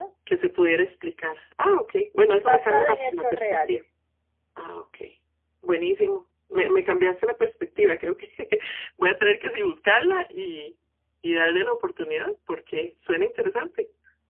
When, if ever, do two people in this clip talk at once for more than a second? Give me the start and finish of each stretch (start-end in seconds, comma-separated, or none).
2.3-3.8